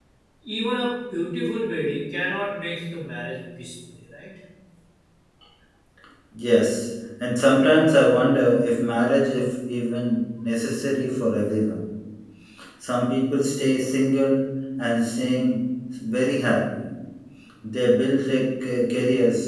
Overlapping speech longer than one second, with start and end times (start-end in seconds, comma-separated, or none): none